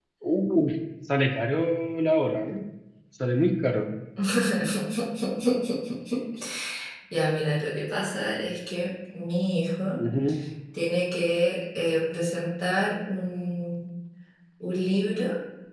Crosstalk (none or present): none